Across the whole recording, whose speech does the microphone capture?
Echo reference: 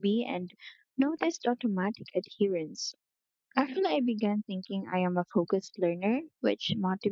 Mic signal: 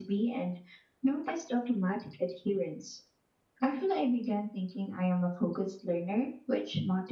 echo only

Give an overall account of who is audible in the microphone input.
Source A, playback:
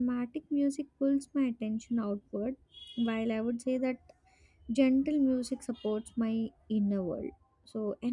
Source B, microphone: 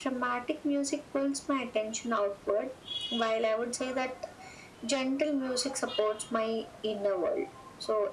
echo only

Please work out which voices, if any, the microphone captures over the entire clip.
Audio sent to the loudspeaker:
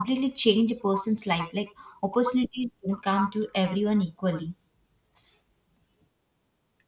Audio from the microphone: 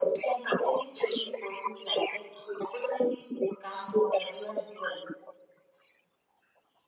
echo only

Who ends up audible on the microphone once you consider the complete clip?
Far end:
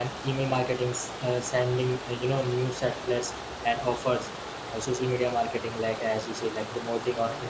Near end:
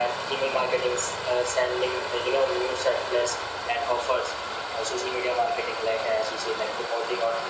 echo only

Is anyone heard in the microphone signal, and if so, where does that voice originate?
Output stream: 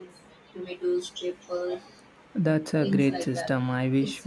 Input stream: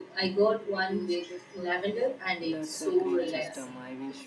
both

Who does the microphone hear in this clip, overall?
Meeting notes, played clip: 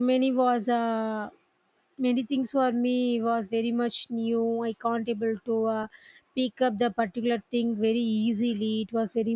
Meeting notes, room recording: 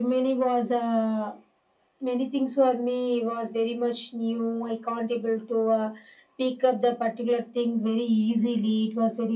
echo only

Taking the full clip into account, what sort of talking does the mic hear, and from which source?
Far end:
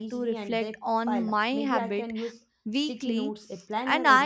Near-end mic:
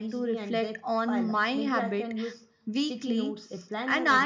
echo only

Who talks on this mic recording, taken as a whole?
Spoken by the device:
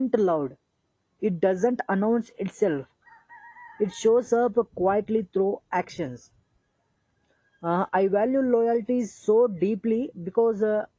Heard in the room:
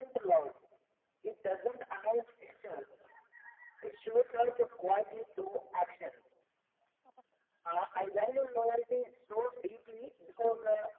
echo only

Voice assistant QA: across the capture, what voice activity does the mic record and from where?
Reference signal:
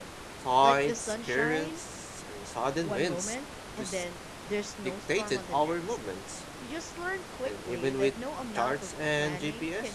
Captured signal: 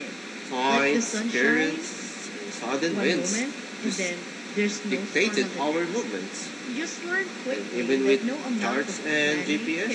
echo only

